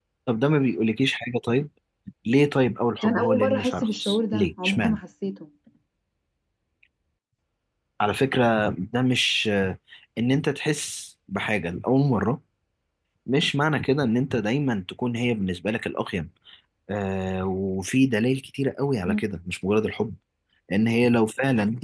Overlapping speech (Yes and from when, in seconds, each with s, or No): Yes, from 3.0 s